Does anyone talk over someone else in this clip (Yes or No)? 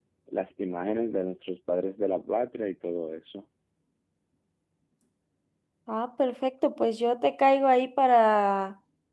No